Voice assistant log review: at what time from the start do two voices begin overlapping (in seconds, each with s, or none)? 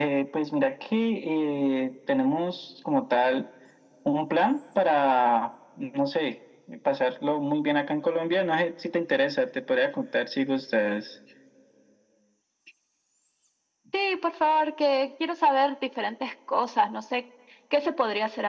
none